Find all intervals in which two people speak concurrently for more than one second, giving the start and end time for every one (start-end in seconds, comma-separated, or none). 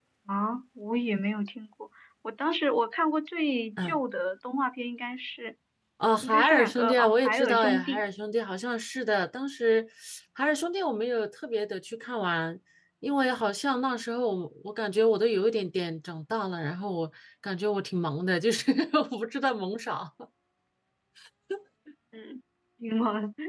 6.2-8.0